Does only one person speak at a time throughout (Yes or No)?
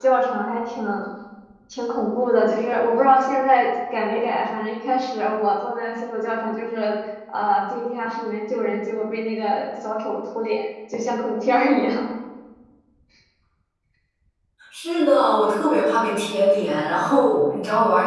Yes